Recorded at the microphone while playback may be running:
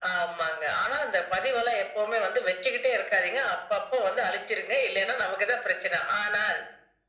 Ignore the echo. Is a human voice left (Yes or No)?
No